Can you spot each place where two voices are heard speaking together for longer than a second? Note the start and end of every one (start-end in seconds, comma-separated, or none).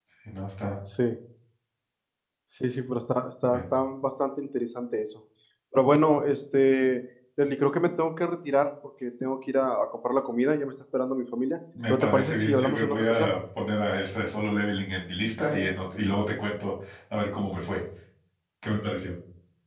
11.9-13.3